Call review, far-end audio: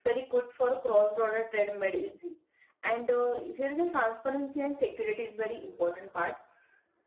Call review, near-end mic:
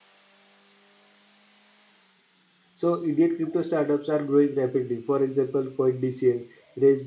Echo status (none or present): none